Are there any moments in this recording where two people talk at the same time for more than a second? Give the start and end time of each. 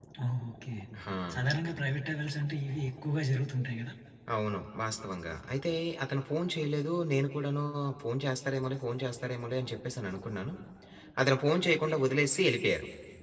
none

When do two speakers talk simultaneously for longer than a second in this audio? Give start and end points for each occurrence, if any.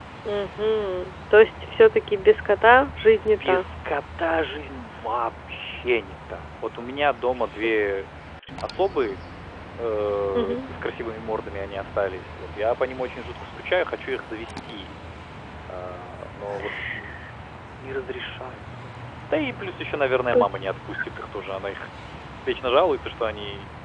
none

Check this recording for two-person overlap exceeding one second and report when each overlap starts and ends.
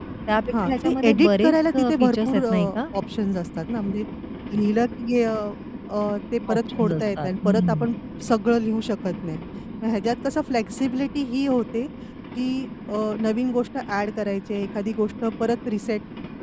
0.5-2.8, 6.5-7.8

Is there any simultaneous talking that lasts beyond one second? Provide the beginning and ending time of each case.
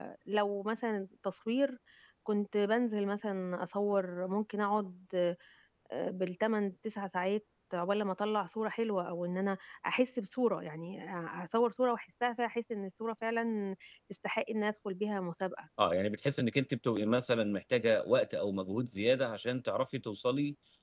none

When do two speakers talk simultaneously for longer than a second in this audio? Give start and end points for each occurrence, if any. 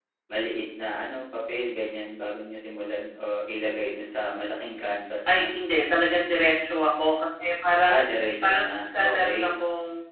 7.9-9.5

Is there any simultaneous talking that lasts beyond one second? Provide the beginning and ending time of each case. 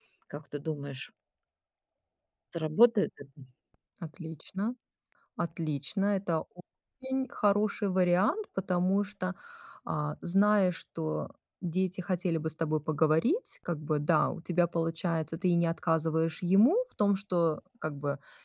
none

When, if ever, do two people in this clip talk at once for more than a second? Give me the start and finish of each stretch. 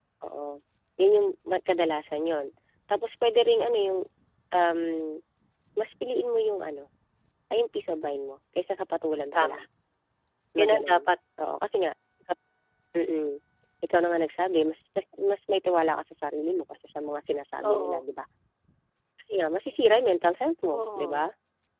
none

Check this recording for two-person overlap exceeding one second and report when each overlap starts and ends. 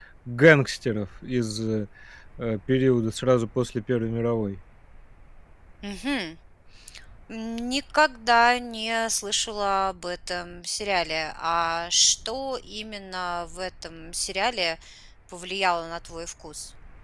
none

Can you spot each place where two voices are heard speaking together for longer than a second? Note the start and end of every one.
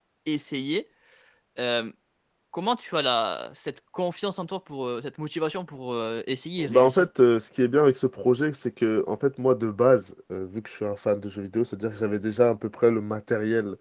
none

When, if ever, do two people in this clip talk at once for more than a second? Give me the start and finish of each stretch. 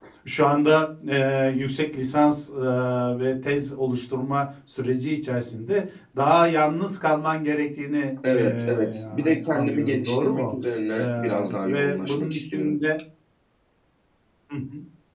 8.3-10.5, 11.0-12.8

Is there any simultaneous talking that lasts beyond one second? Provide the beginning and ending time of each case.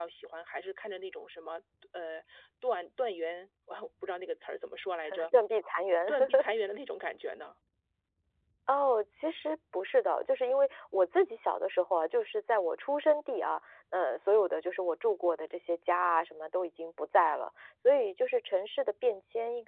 none

